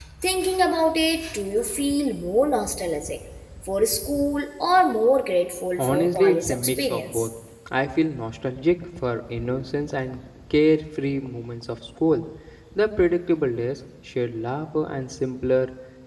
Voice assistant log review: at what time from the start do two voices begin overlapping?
5.8 s

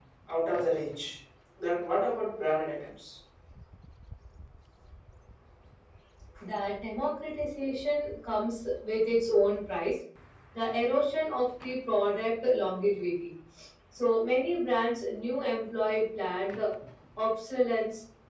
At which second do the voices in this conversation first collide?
none

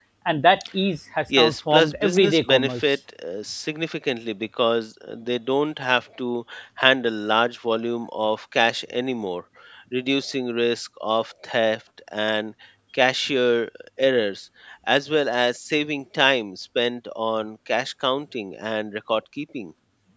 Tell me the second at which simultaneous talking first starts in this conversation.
1.3 s

